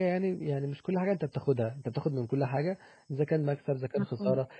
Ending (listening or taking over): listening